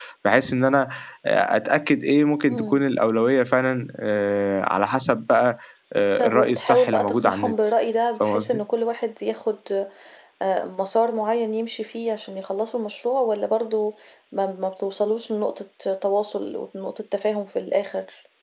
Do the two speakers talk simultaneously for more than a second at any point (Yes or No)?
Yes